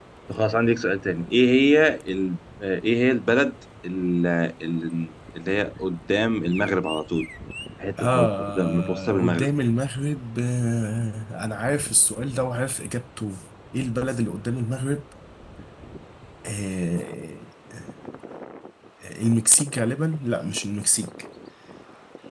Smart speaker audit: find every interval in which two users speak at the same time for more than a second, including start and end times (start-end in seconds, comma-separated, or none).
8.0-9.5